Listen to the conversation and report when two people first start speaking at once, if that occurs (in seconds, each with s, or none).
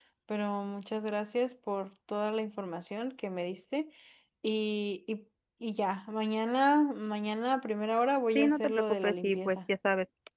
8.4 s